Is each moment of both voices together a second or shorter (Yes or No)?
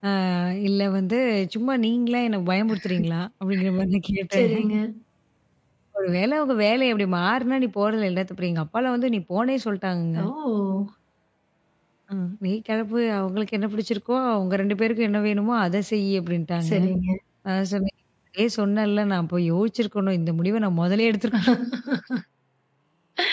Yes